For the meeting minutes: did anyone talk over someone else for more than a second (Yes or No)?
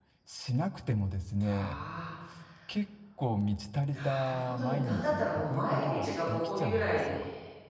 Yes